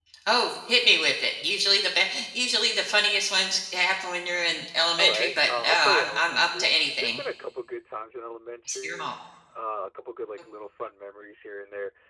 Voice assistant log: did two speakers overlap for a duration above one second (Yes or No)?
Yes